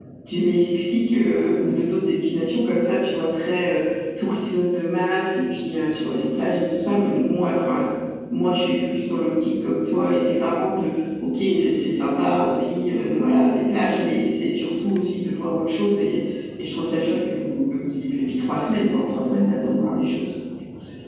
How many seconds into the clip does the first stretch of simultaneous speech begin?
none

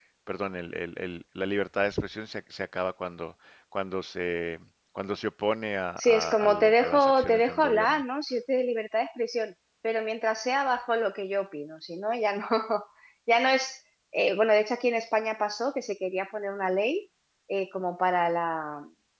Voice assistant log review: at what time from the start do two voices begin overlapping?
6.0 s

